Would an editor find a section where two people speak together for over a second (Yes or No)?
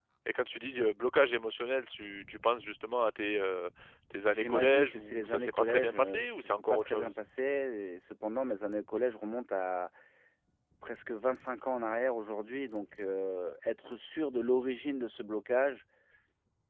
Yes